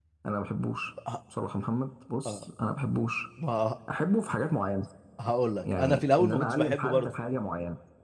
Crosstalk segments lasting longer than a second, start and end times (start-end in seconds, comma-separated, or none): 5.6-7.1